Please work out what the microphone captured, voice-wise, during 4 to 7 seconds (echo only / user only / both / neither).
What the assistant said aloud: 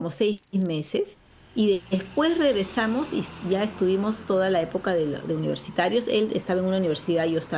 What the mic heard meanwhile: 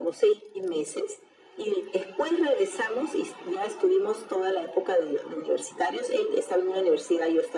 echo only